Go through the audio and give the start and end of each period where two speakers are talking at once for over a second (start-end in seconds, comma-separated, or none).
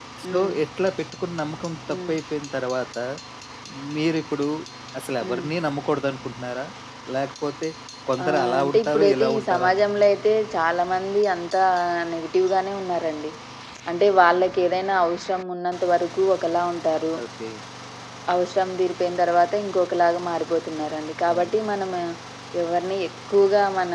8.2-10.1